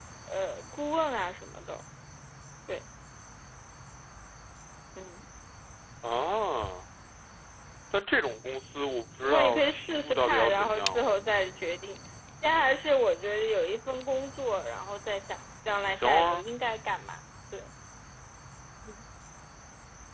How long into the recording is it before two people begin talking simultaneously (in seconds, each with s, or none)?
9.2 s